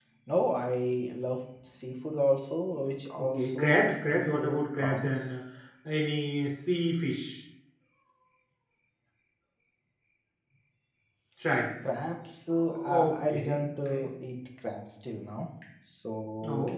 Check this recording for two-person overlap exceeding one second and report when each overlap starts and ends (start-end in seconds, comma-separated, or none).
3.2-5.3, 12.6-14.1